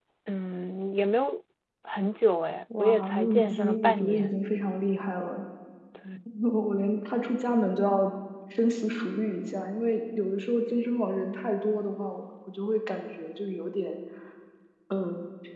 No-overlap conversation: No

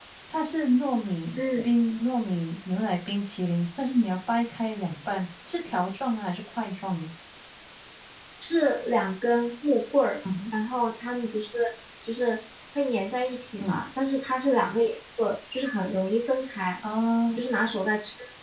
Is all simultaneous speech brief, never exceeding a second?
Yes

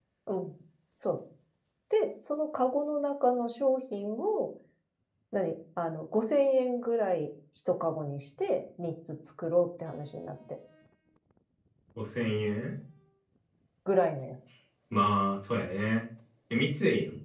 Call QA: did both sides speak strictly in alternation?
Yes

